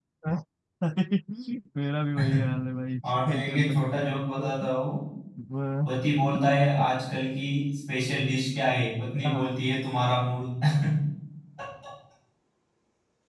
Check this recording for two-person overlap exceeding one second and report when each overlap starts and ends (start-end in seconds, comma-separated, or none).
3.3-4.5